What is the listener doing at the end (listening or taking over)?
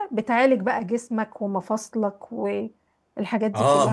taking over